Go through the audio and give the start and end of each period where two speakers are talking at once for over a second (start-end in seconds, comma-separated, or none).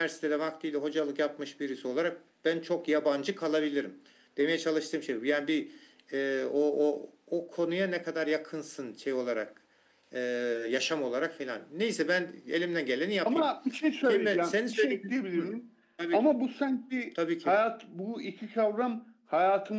14.1-15.5